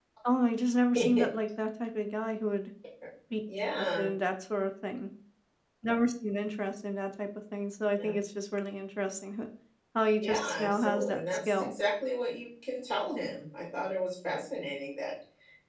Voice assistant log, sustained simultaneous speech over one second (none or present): present